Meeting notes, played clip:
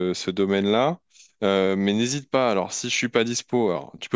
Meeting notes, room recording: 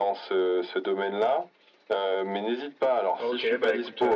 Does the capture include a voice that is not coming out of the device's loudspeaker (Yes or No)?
Yes